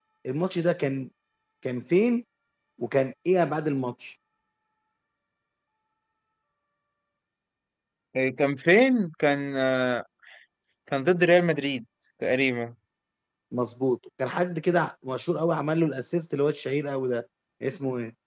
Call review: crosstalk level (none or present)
none